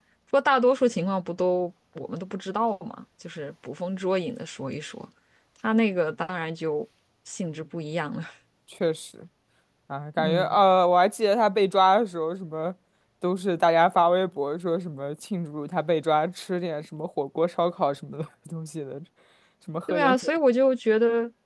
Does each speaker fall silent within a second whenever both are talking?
Yes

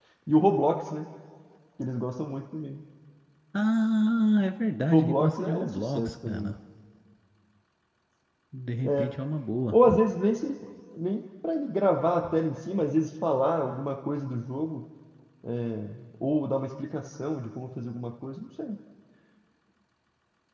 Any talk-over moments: Yes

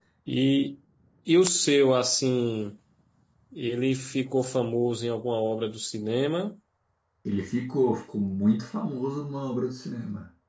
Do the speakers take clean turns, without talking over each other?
Yes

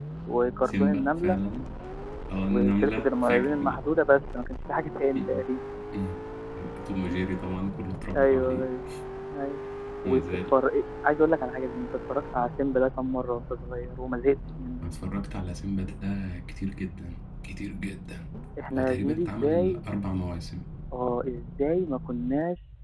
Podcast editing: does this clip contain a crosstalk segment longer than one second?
Yes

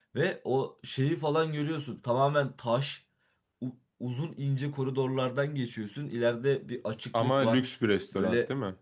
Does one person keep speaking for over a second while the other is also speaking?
No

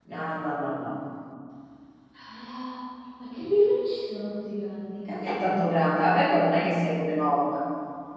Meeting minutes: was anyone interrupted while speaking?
No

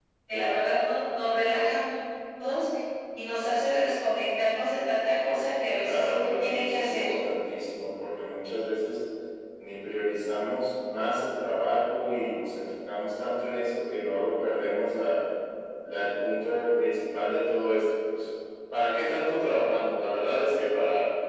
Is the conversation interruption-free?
No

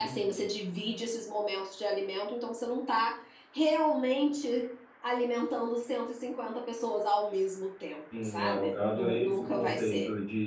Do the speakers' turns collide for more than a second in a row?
Yes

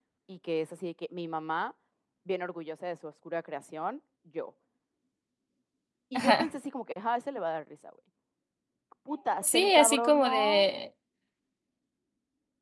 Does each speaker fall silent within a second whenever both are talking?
No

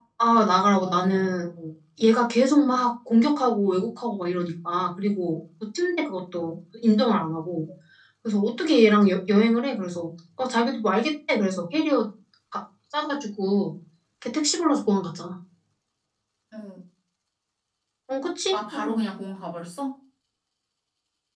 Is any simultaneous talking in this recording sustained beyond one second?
No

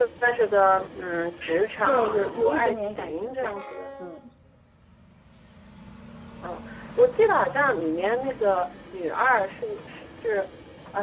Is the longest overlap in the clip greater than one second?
Yes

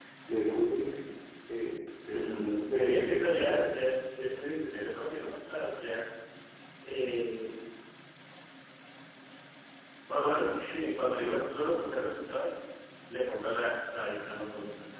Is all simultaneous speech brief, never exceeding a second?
No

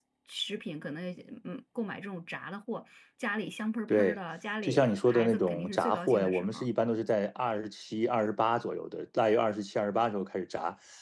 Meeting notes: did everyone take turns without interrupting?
No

